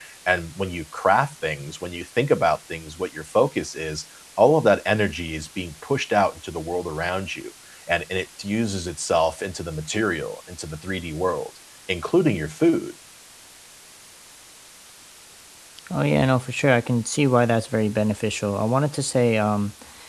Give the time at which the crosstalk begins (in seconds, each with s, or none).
none